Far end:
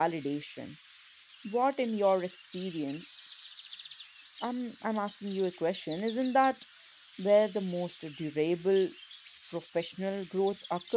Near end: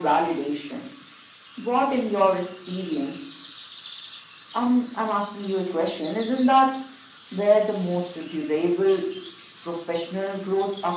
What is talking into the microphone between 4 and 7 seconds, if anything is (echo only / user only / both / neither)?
echo only